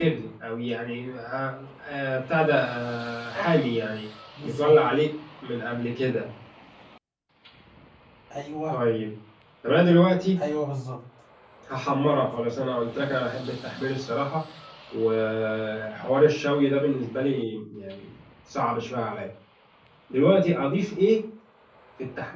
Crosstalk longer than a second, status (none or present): none